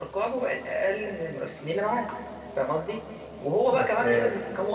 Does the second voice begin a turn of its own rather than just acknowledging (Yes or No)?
No